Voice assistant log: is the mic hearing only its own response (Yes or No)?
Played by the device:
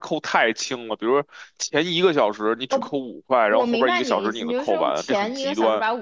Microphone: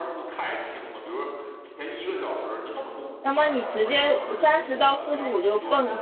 No